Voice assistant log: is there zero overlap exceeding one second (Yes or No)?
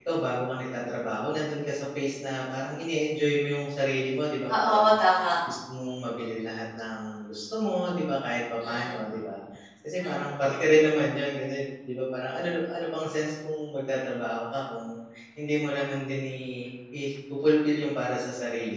Yes